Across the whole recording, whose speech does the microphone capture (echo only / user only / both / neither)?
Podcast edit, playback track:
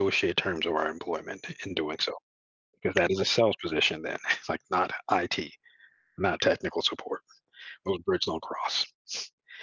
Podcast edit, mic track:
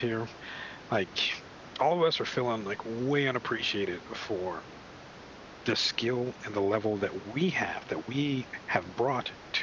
user only